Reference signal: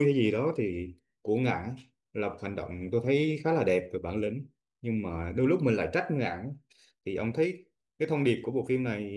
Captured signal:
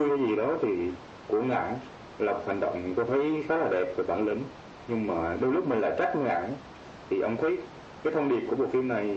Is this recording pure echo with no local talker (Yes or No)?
Yes